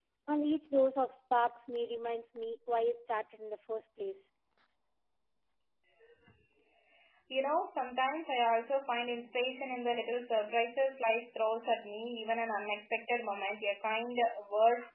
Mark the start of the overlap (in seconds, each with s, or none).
none